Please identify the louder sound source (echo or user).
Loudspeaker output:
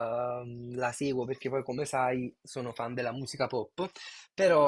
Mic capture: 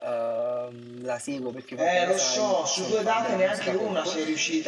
user